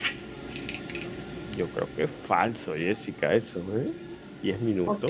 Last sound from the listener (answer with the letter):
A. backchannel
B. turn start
B